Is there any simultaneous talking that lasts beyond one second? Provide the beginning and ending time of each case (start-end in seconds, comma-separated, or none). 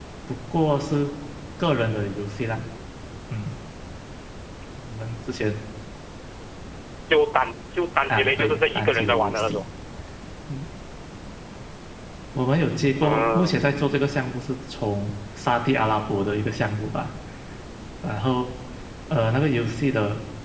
8.1-9.6